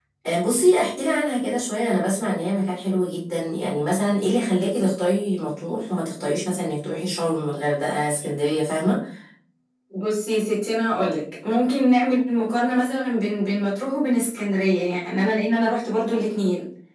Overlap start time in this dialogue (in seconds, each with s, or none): none